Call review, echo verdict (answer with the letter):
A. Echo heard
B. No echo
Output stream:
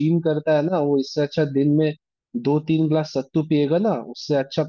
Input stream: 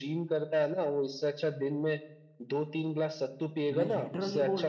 A